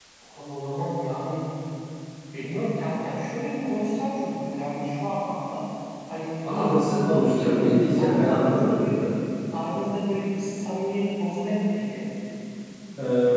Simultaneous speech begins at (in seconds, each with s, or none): 6.5 s